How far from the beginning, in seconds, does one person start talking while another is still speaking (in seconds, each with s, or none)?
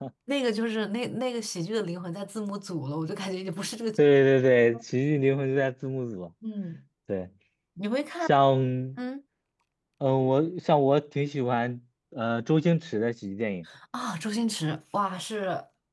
none